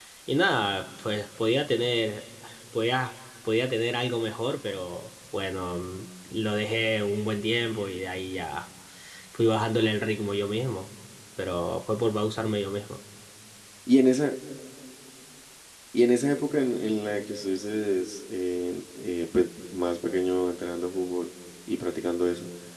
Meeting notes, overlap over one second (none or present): none